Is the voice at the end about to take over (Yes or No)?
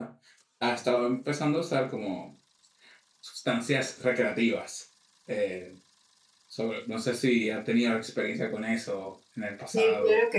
Yes